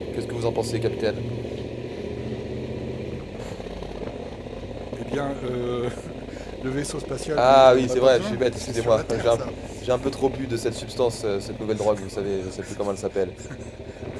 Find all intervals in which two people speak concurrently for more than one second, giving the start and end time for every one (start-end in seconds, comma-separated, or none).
7.4-9.4